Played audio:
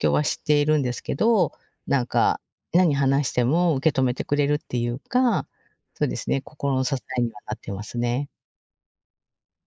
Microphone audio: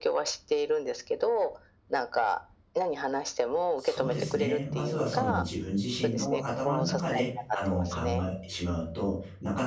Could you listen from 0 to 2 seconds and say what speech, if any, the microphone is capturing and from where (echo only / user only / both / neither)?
echo only